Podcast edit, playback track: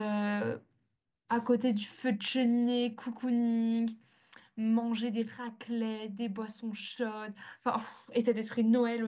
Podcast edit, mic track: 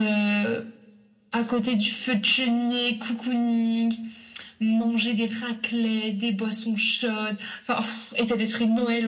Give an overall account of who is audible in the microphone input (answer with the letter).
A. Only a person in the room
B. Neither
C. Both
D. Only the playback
D